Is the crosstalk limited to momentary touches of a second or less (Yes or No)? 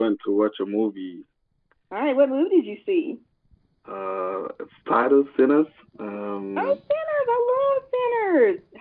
Yes